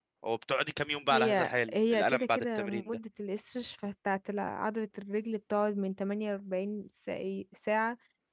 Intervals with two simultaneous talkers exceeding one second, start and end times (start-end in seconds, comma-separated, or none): 1.1-2.8